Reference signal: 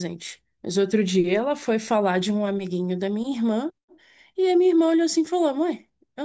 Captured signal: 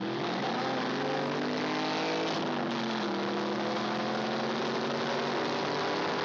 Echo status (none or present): none